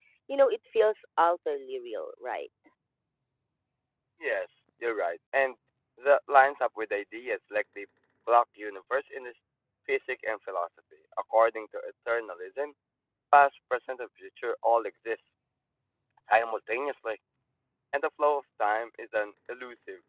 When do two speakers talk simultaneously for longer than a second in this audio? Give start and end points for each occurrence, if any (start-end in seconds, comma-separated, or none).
none